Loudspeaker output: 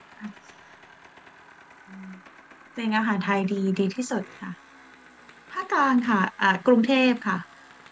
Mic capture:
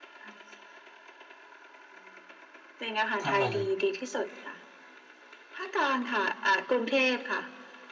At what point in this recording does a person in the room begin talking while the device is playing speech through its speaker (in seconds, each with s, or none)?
3.2 s